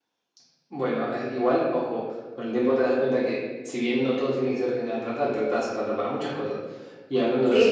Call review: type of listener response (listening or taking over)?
listening